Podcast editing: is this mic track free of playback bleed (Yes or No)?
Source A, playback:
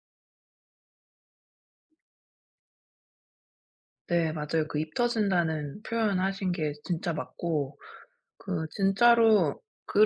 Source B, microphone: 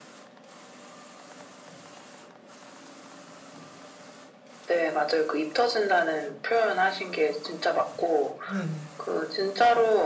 No